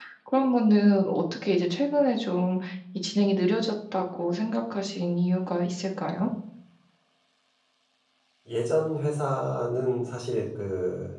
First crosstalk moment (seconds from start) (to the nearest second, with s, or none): none